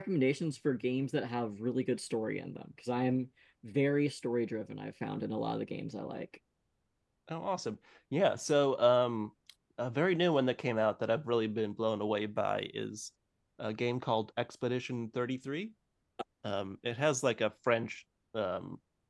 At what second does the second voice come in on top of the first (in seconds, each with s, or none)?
none